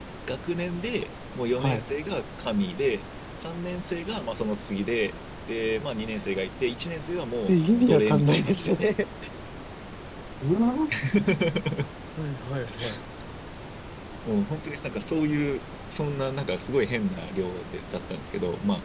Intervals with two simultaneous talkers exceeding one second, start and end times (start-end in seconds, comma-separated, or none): 7.5-8.8